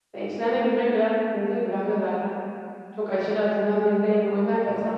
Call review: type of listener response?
listening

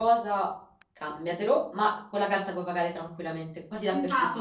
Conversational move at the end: taking over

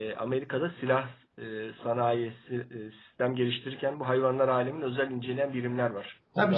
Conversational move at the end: taking over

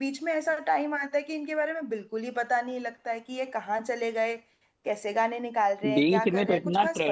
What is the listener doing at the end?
taking over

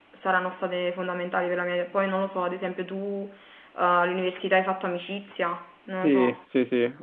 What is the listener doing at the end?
taking over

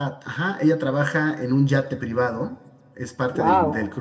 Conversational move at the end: listening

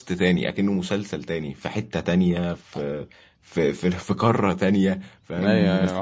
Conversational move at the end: taking over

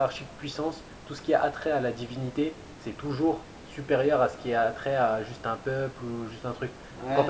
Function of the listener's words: taking over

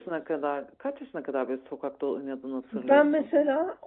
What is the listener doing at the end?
taking over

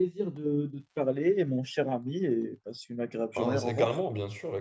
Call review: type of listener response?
taking over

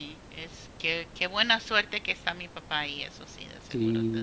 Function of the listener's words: taking over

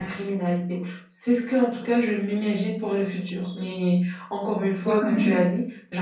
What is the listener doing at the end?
listening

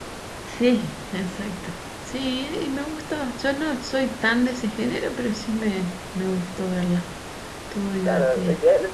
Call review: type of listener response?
taking over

